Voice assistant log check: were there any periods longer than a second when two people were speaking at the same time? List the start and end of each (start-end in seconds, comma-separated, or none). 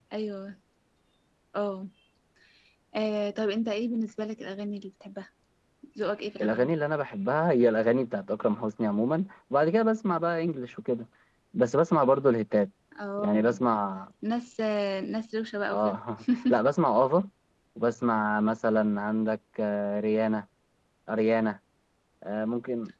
none